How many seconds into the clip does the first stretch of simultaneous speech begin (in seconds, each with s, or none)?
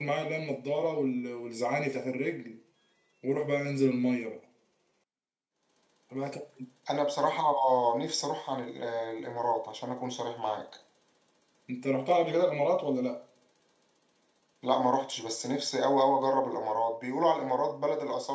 none